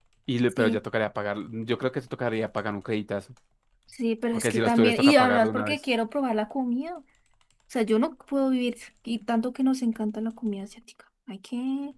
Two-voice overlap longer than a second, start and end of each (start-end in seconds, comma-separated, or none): 4.3-5.8